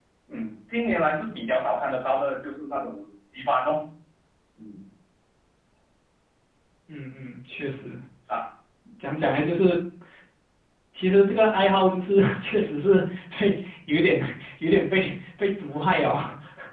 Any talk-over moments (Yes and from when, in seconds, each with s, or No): No